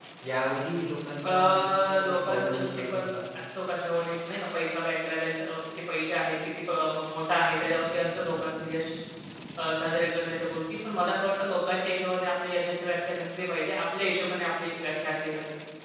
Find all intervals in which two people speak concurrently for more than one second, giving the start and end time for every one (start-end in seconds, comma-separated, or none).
1.2-3.2